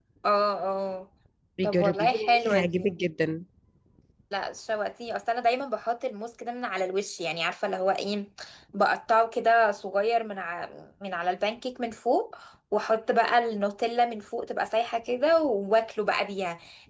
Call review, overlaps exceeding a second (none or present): present